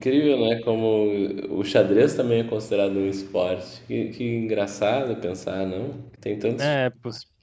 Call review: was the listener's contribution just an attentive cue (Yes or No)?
No